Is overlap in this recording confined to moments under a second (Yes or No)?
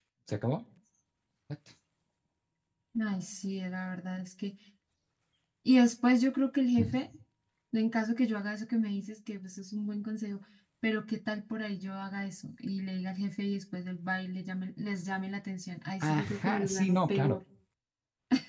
No